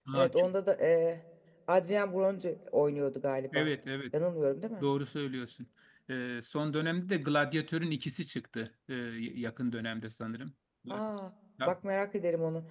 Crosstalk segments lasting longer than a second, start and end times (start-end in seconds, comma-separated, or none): none